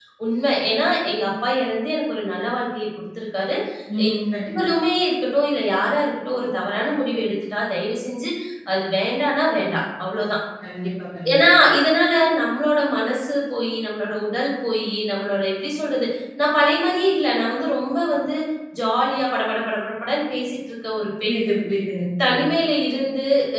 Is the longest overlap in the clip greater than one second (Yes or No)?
No